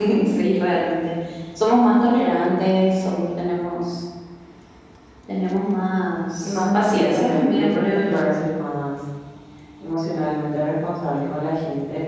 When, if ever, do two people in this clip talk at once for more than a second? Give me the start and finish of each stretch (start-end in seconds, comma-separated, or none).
6.4-8.3